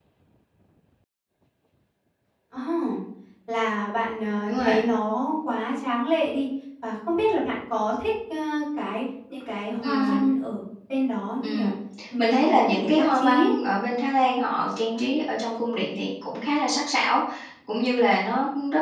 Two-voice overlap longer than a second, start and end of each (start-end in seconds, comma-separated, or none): 12.2-13.5